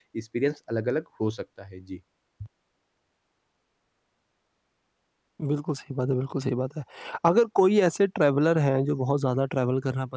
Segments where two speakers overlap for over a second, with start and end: none

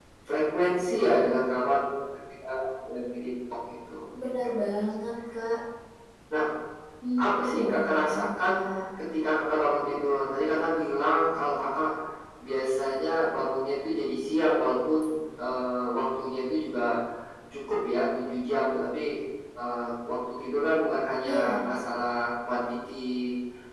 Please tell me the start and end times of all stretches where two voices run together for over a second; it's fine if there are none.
7.2-8.5

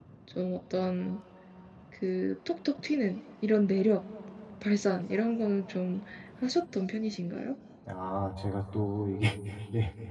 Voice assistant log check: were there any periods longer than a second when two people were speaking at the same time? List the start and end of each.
none

